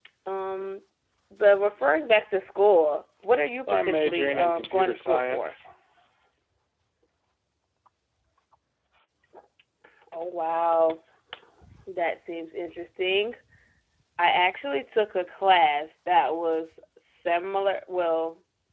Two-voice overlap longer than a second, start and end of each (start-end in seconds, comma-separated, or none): 3.7-5.5